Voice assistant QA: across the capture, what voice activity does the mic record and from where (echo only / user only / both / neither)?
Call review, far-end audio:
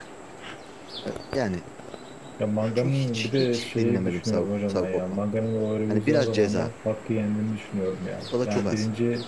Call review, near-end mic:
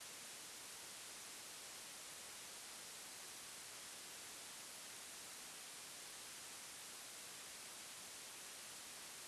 neither